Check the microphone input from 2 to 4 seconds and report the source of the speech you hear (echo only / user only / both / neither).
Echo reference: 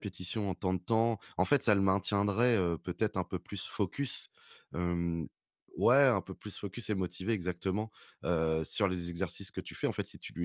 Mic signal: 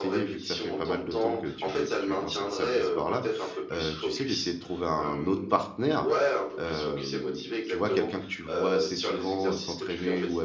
both